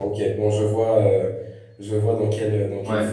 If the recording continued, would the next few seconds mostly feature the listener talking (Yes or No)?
Yes